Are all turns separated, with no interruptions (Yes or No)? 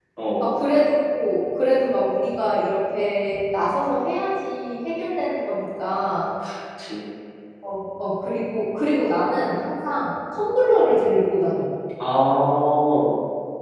Yes